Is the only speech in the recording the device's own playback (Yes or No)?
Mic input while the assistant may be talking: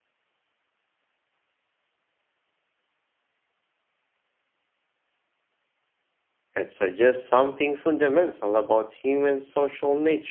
No